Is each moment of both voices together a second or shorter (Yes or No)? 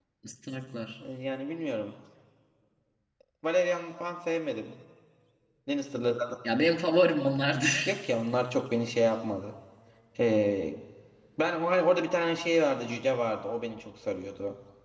Yes